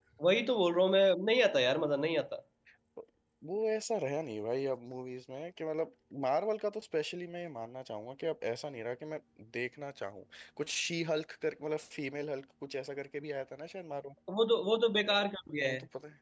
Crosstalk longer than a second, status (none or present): none